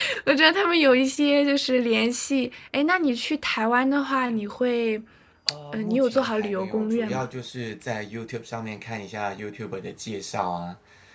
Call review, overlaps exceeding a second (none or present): present